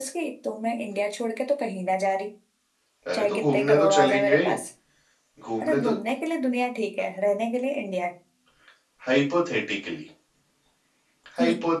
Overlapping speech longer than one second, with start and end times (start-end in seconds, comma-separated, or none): 3.1-4.6